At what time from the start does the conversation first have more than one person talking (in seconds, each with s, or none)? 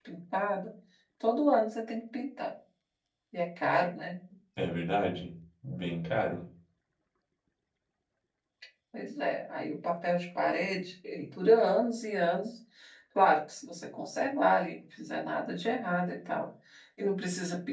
none